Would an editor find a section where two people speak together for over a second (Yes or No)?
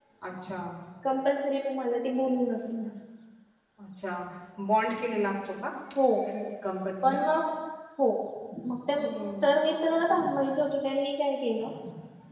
No